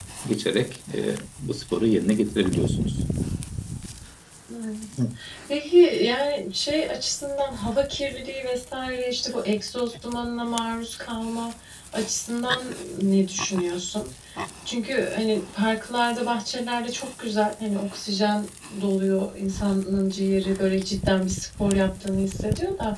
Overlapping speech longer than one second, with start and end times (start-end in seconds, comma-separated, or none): none